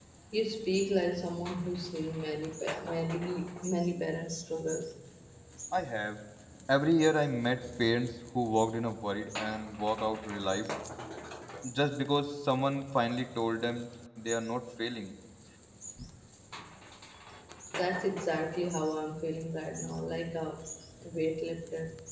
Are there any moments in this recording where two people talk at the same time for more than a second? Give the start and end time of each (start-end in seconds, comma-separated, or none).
none